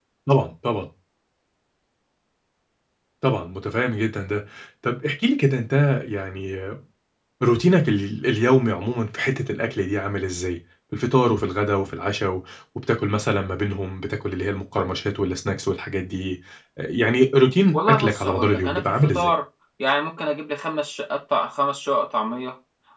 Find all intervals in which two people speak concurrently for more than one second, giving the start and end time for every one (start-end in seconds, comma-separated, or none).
17.7-19.3